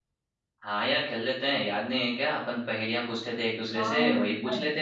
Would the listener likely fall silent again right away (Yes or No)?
No